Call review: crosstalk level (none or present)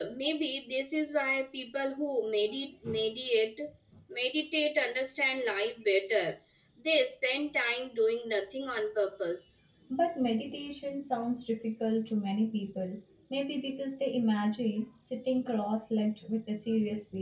none